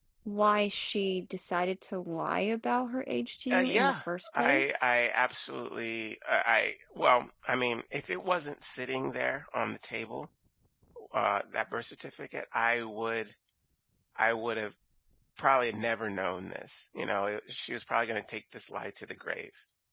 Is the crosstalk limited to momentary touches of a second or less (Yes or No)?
No